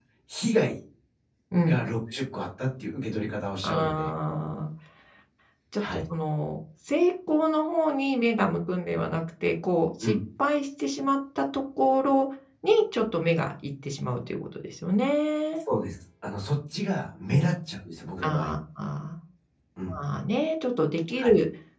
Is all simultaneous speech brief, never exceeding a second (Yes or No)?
Yes